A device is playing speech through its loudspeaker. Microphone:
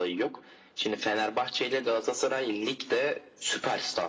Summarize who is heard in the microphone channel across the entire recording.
echo only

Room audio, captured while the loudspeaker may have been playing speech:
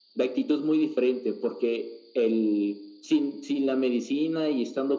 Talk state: echo only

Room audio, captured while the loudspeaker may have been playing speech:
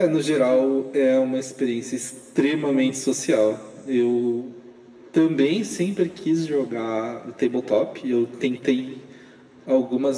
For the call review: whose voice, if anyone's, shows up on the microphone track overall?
echo only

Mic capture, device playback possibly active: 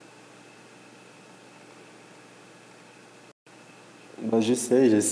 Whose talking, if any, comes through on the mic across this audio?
user only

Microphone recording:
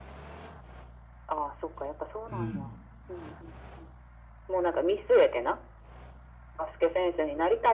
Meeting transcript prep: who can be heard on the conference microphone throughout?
both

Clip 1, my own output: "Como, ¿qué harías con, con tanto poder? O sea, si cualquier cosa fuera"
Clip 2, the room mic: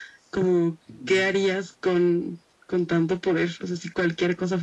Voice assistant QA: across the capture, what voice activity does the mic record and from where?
both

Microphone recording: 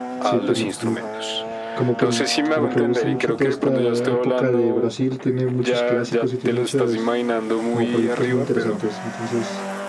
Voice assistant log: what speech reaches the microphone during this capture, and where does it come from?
both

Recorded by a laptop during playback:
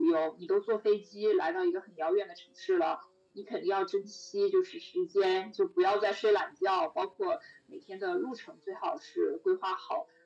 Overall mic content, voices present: echo only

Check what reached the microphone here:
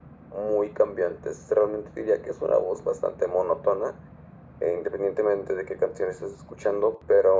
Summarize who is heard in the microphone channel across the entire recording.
echo only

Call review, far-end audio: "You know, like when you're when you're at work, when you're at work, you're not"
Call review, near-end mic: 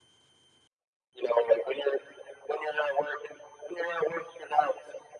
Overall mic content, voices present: echo only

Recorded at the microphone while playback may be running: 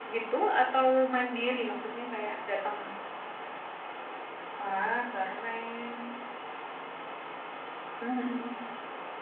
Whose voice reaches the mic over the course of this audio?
echo only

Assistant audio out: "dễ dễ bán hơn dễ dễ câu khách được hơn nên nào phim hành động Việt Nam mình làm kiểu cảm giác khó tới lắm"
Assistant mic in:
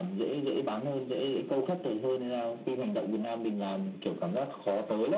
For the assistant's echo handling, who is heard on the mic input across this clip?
echo only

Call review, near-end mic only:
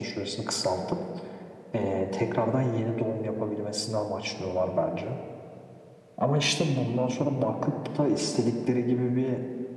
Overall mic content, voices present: echo only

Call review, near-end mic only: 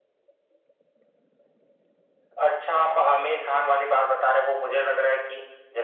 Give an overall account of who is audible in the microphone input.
echo only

